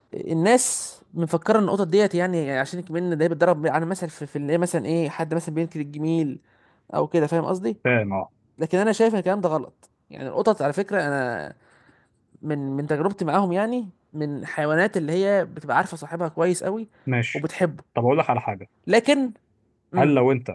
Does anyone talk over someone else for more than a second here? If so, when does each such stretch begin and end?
none

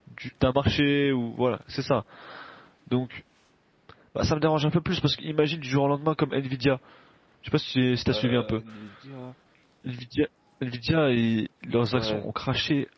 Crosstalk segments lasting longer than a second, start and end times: none

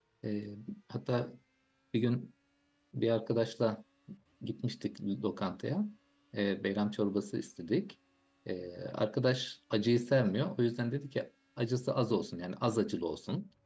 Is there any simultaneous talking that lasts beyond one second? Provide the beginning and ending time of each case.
none

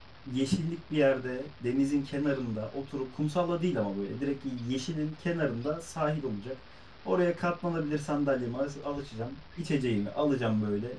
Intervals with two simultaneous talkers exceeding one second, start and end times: none

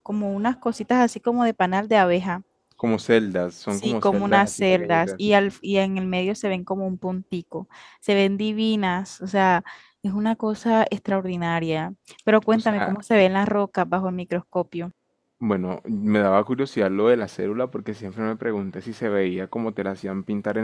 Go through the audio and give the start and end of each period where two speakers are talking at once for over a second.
3.7-5.1

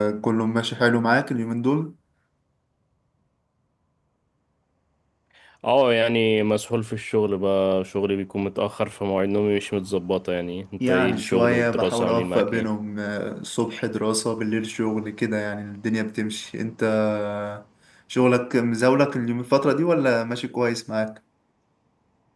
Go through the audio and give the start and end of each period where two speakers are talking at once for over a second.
10.9-12.7

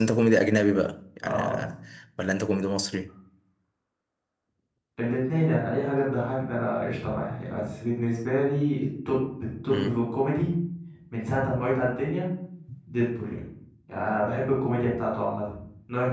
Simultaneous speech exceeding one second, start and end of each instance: none

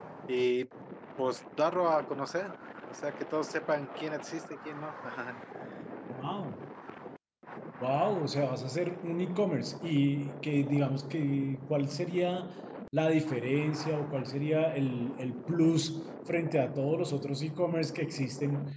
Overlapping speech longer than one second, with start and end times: none

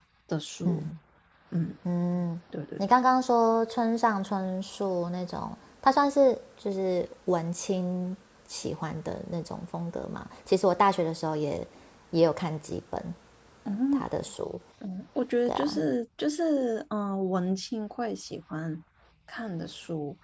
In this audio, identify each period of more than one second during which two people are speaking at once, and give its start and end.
none

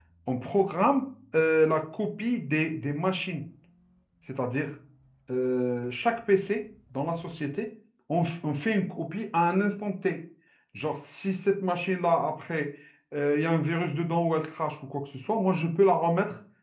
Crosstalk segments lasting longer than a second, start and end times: none

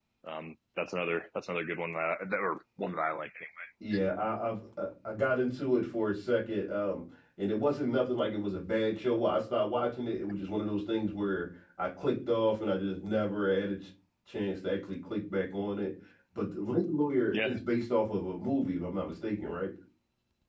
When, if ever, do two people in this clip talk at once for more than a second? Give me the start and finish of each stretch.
none

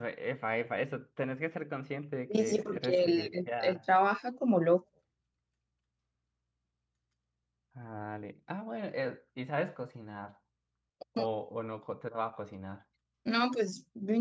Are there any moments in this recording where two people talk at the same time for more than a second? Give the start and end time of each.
2.3-3.8

